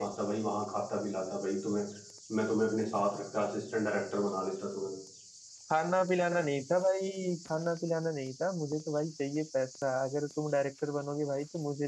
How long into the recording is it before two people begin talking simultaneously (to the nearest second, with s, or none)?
none